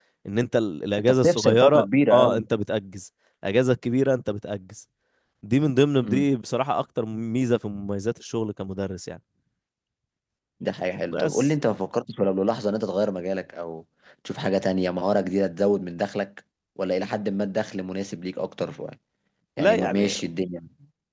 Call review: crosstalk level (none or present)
present